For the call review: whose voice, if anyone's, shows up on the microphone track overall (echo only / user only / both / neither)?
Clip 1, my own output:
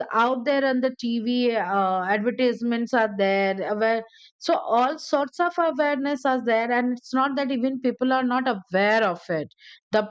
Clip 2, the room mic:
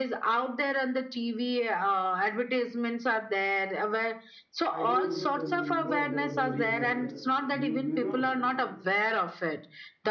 both